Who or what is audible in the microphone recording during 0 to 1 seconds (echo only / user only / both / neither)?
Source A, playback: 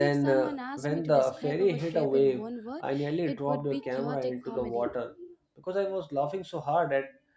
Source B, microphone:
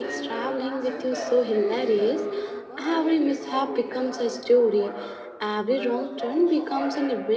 both